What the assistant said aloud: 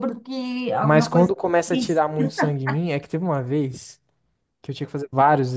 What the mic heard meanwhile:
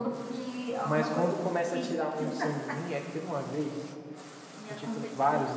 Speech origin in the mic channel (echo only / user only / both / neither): both